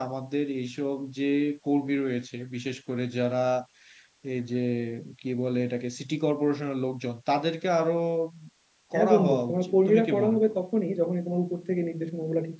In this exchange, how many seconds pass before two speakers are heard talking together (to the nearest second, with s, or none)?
9 s